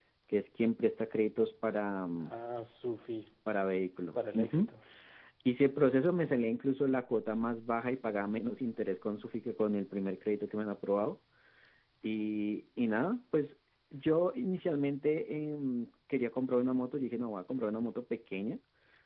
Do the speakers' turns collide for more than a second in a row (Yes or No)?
No